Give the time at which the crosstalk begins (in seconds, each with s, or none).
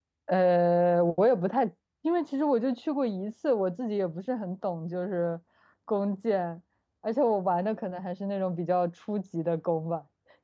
none